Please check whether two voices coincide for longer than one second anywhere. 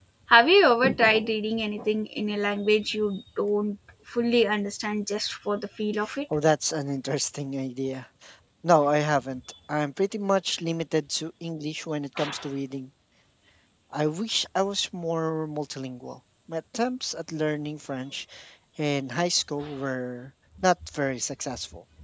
No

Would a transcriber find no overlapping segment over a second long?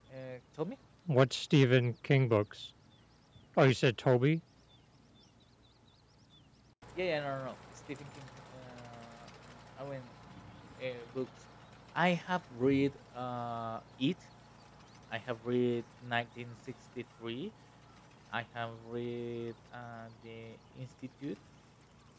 Yes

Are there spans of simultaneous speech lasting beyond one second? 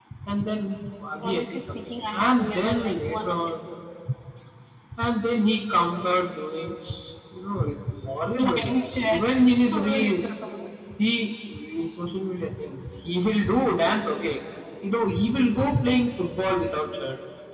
Yes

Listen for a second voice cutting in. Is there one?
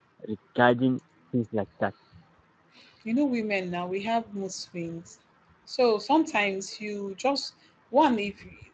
No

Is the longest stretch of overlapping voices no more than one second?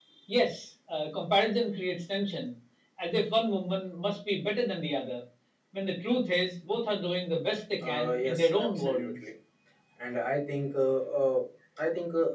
No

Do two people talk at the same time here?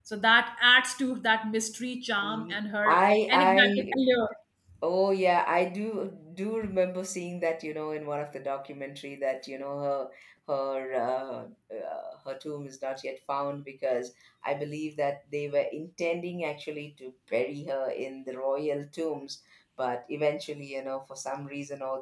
Yes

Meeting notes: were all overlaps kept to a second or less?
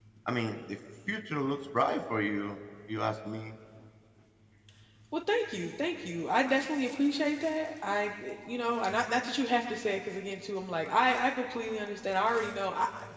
Yes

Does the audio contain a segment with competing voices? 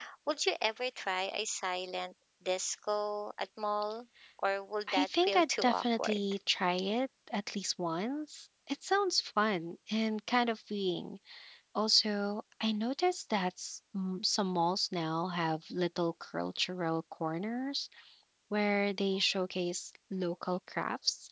Yes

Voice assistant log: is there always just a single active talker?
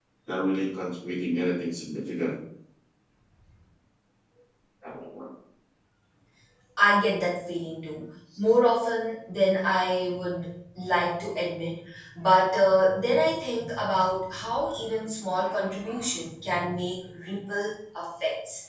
Yes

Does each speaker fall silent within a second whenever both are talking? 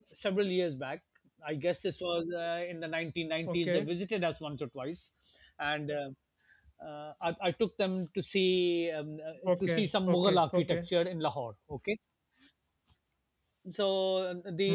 No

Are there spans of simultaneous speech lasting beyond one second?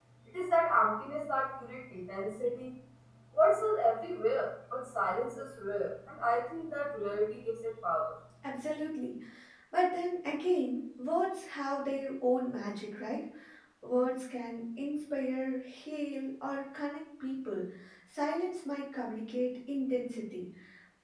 No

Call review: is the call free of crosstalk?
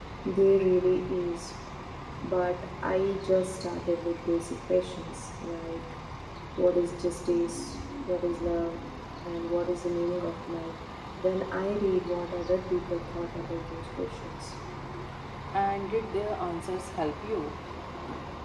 Yes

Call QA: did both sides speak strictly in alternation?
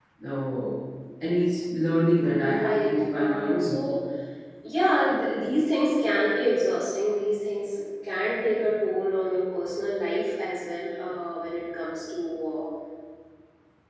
No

